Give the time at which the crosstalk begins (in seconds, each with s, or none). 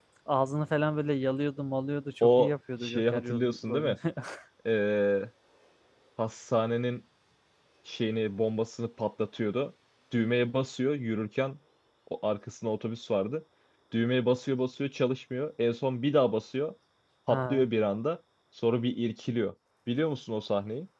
2.2 s